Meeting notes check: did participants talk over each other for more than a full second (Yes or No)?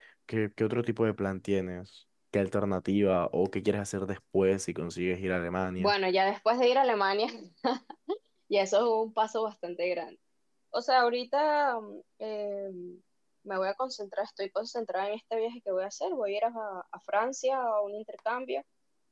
No